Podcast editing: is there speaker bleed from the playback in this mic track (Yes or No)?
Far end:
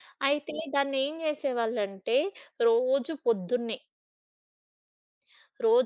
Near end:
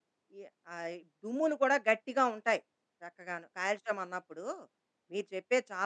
No